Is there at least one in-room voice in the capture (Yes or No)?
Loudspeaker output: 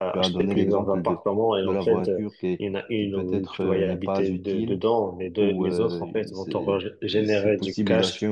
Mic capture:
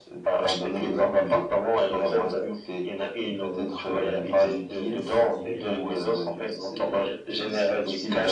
Yes